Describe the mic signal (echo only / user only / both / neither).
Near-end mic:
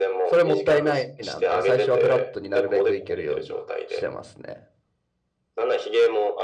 both